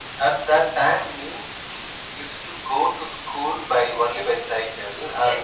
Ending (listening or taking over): listening